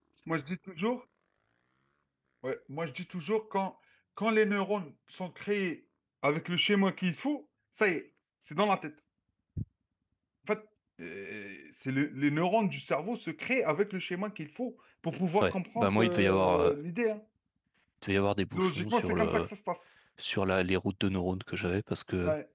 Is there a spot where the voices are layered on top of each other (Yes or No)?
Yes